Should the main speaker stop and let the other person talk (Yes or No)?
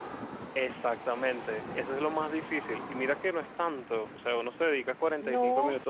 No